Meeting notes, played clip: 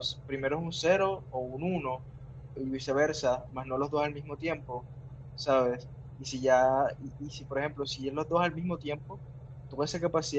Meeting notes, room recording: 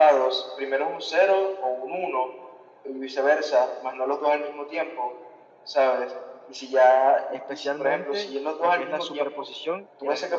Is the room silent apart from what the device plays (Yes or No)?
No